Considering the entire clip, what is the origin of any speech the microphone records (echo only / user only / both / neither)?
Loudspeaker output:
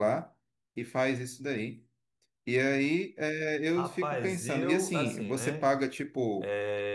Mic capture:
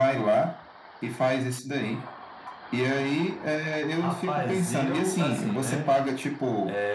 echo only